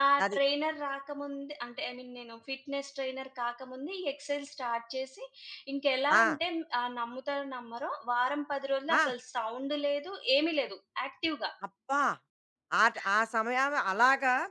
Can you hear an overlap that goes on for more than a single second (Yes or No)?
No